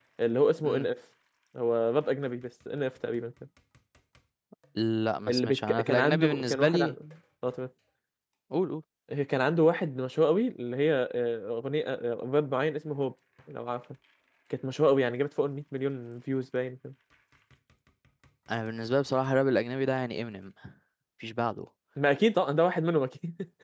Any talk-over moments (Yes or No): Yes